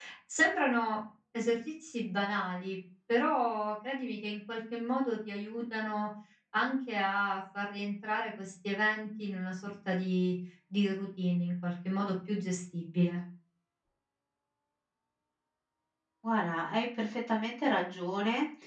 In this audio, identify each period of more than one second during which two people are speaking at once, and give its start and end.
none

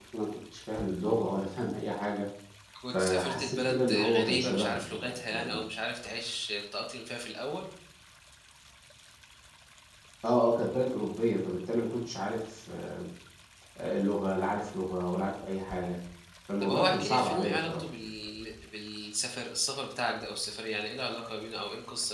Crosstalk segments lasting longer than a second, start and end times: 3.0-5.6, 16.6-17.8

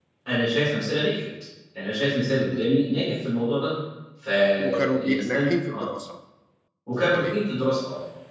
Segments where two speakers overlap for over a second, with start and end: 4.6-5.8

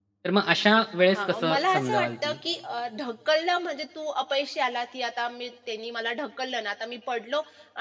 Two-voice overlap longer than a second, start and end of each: 1.1-2.4

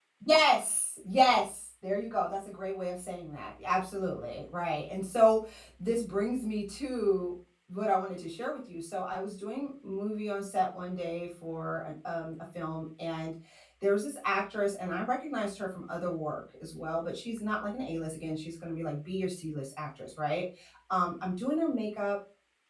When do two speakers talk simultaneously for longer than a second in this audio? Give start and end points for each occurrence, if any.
none

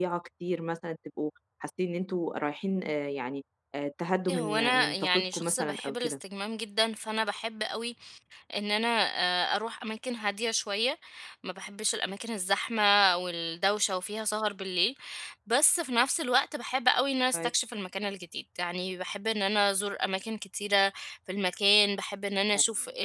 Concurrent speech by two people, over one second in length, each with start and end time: 4.3-6.2

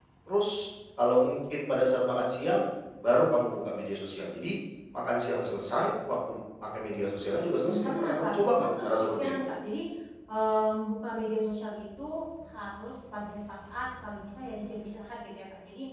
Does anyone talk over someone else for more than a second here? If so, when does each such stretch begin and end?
7.4-9.5

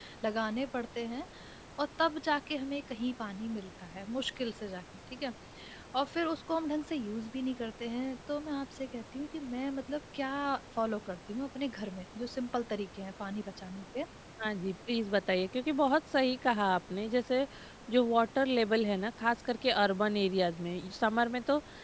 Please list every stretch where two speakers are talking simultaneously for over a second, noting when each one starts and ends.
none

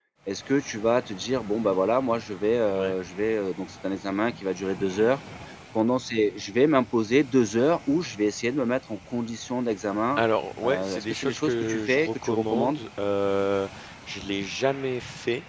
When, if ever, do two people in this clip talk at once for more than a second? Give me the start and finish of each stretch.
10.6-12.8

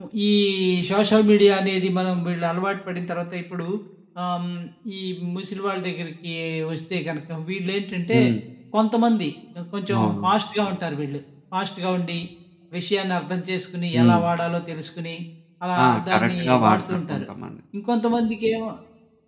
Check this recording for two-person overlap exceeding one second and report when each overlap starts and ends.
15.8-17.3

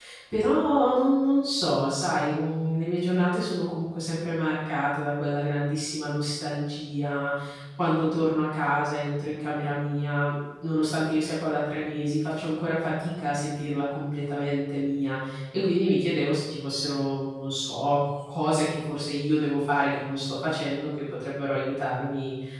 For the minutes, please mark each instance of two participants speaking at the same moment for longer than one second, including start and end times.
none

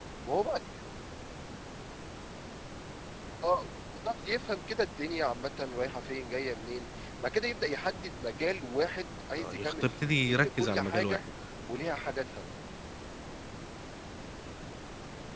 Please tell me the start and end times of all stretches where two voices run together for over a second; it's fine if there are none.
9.4-11.2

